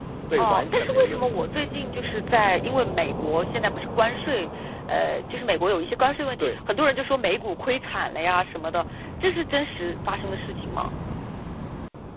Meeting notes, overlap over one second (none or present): present